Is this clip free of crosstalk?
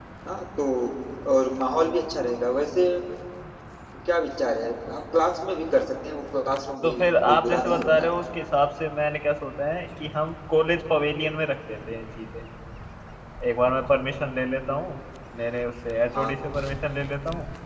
No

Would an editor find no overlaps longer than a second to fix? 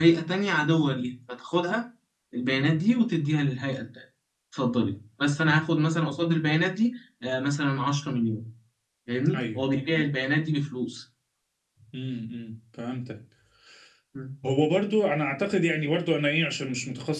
Yes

